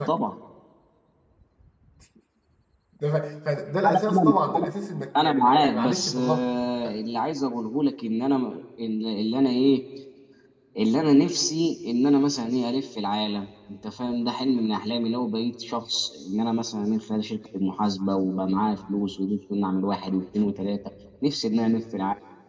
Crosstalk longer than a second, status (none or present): present